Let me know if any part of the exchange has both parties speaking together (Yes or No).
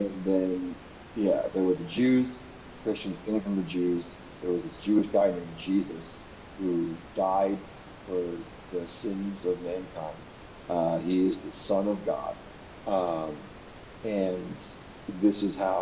No